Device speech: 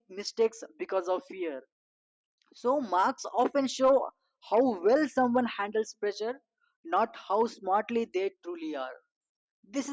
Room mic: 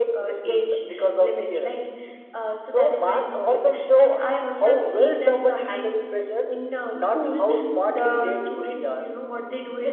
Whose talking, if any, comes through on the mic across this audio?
both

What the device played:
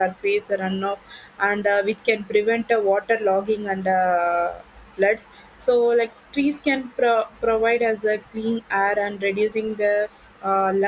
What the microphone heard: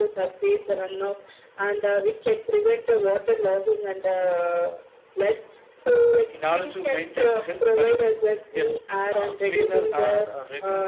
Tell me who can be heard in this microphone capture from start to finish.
both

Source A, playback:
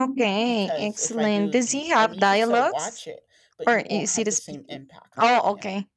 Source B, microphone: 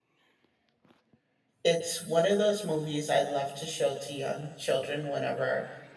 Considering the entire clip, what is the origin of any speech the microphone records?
user only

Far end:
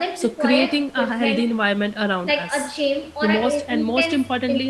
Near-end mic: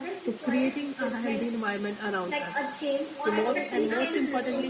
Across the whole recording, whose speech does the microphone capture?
both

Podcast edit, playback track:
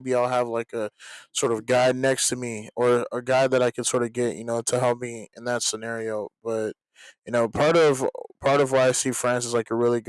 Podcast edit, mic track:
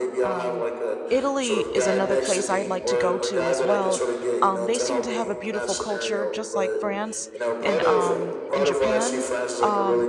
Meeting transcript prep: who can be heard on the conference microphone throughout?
both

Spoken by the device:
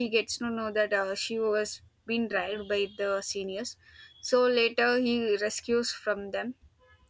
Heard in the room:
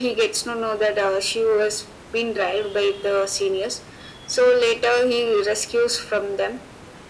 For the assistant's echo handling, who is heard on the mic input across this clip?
echo only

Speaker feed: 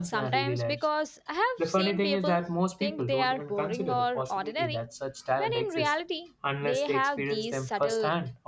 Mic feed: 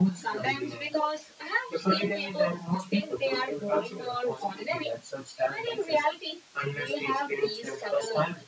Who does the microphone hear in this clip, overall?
echo only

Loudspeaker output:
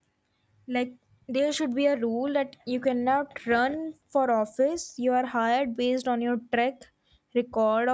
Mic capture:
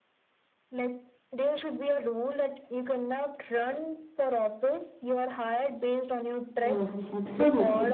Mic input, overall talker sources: both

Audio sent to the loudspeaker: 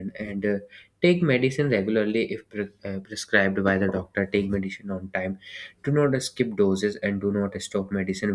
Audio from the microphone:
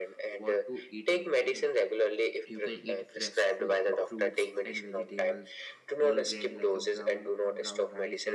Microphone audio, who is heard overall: both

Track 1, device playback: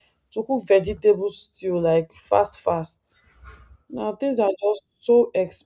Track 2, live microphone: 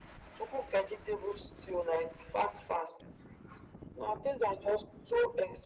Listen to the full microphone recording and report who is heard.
echo only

